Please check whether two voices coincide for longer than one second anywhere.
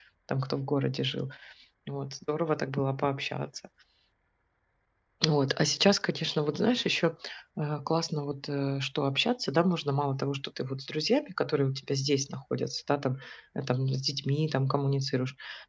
No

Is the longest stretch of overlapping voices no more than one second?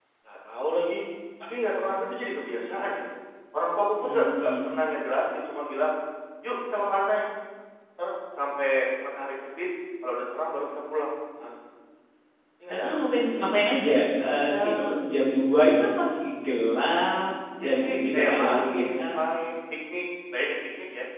No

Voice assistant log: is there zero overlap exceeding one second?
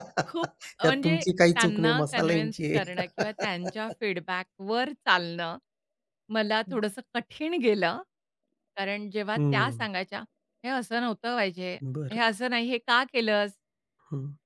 No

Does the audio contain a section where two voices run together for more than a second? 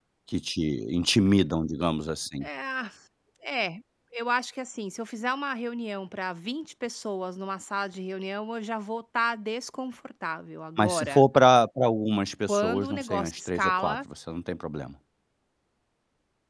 Yes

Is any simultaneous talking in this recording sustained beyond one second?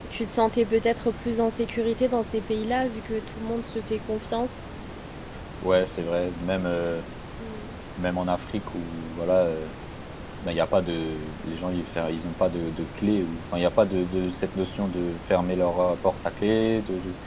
No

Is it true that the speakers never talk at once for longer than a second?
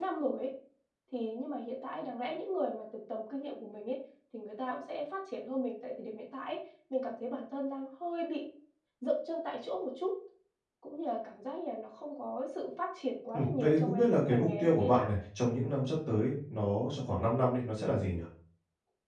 No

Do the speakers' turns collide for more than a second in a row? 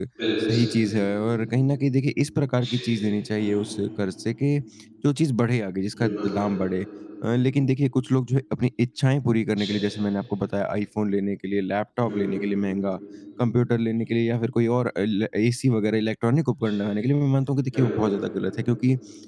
No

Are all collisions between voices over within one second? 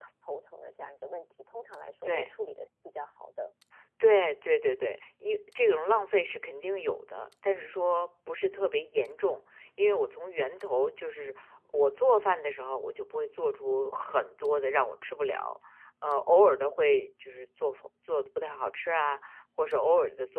Yes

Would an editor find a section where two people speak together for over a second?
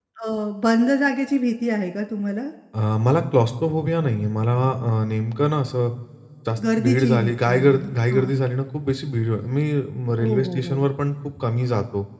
Yes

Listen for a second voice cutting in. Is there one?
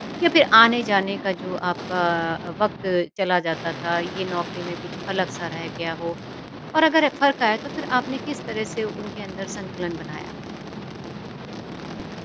No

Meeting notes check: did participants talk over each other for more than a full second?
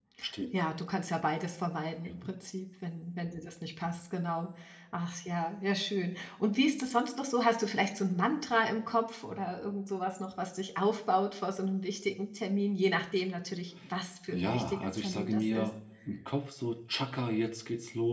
Yes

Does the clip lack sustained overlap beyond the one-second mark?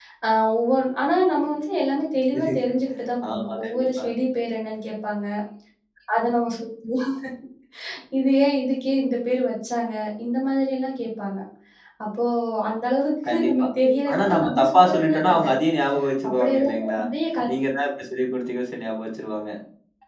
No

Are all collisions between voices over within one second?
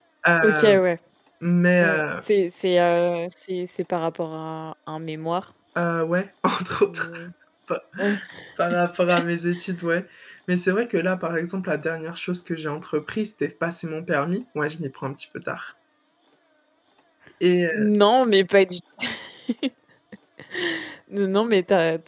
Yes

